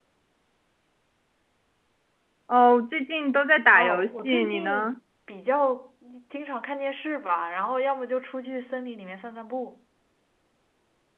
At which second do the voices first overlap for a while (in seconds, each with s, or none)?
3.7 s